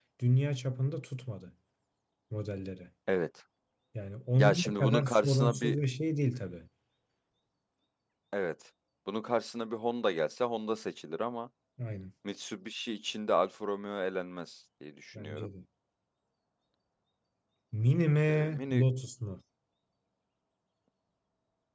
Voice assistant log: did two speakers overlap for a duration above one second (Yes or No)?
Yes